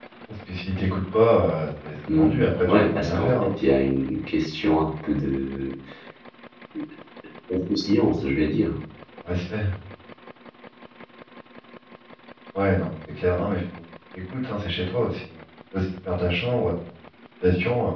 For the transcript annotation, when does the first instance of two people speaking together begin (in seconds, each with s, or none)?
2.1 s